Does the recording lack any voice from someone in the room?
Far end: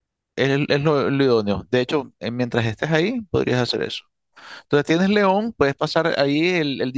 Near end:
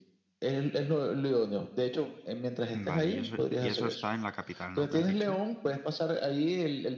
No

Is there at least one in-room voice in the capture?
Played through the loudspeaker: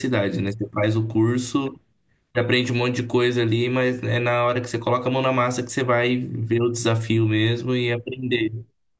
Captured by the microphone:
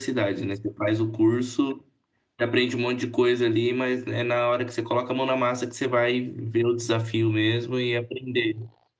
No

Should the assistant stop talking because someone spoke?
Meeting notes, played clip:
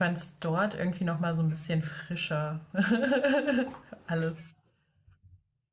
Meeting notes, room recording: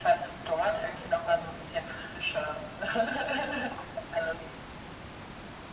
No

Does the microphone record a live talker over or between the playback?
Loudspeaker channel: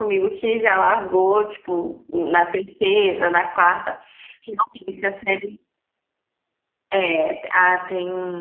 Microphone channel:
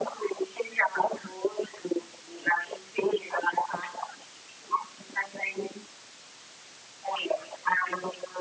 No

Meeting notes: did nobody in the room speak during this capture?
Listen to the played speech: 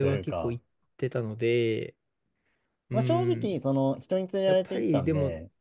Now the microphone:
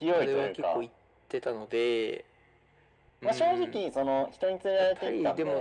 Yes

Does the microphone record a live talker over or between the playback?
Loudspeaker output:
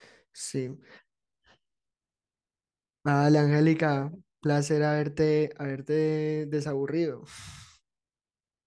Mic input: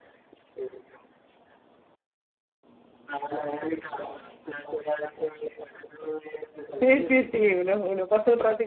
Yes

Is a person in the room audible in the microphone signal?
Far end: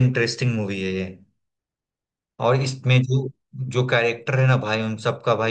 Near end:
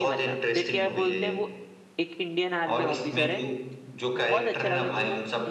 Yes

